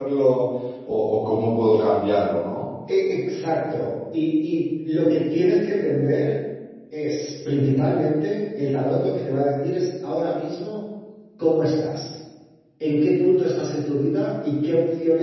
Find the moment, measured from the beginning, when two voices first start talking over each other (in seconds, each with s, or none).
none